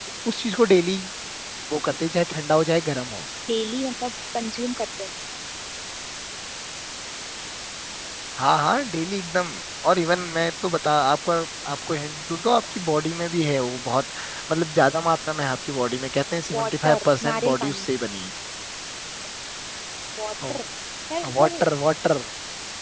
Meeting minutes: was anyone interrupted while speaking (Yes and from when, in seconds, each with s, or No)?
Yes, from 16.6 s